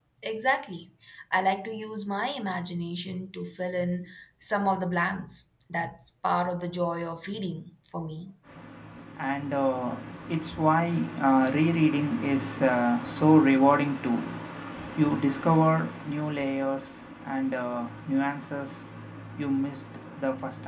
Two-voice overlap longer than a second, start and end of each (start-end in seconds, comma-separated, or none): none